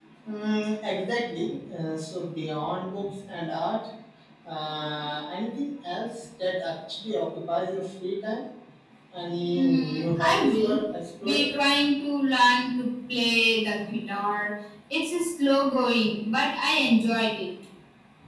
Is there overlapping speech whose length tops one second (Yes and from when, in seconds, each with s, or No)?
Yes, from 9.5 s